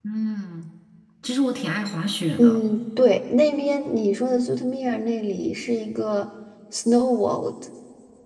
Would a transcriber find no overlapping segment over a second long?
Yes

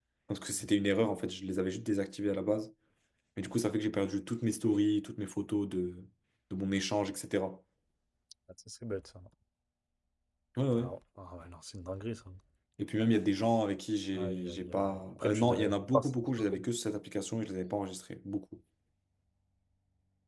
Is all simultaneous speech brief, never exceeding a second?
No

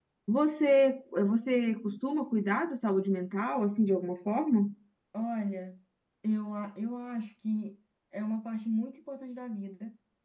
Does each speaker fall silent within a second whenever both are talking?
Yes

